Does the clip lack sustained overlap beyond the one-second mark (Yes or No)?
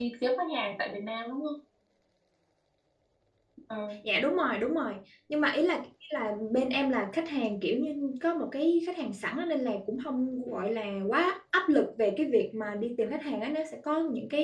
Yes